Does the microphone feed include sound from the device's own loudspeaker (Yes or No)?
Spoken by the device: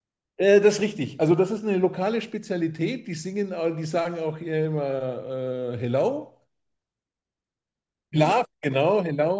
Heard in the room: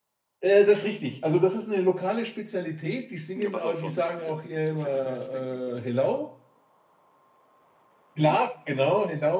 Yes